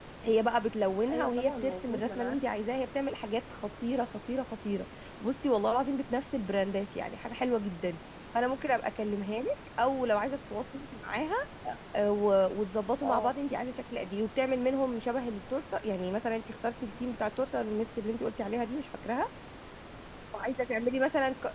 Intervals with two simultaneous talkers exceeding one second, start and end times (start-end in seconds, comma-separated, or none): 1.1-2.4